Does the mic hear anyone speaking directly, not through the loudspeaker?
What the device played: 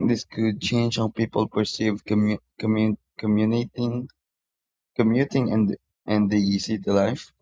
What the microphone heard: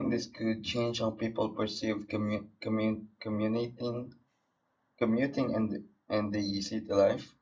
No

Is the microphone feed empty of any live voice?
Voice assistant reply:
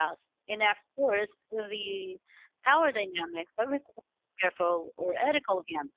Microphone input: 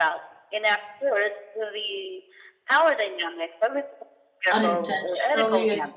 No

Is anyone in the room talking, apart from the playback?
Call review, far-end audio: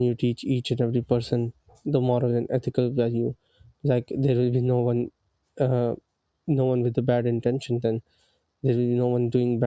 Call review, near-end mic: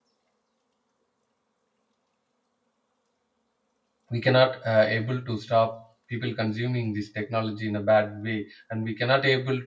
Yes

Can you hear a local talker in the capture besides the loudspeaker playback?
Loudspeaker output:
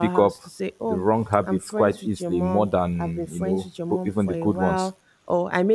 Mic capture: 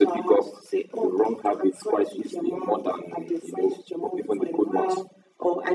No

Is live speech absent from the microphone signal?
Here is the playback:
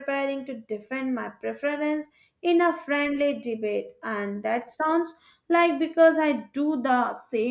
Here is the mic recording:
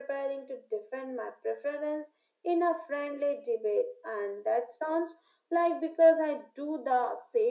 Yes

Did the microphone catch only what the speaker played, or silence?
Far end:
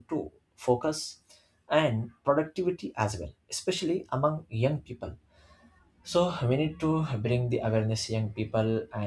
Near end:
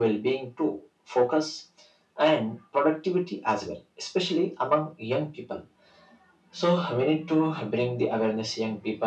Yes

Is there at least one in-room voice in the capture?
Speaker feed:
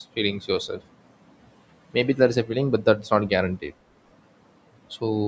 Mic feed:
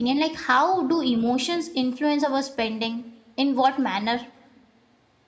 Yes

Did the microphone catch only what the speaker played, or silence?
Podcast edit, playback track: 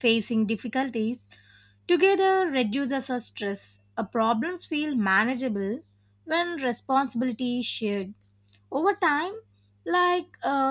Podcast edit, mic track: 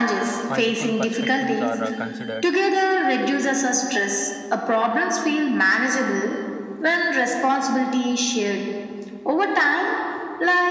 No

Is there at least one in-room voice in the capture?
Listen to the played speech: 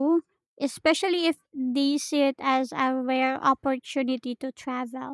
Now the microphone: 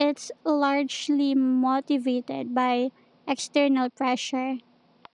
Yes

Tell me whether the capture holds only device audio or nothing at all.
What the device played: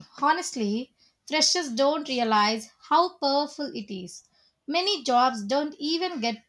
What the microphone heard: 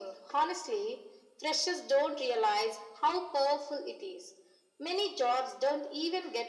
Yes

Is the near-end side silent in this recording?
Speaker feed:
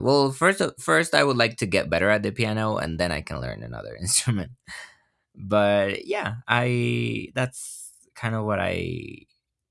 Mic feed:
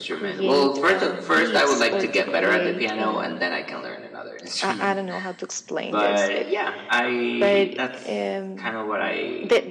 No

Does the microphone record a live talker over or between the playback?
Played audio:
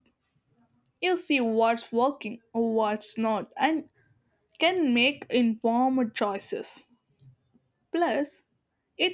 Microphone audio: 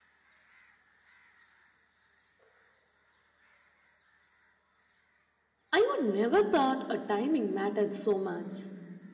Yes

